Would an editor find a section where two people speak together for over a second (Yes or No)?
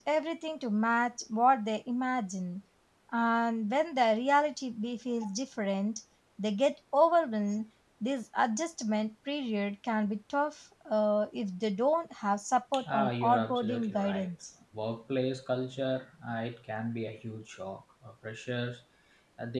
Yes